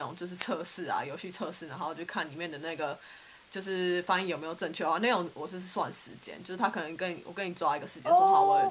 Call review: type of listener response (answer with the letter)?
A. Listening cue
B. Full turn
A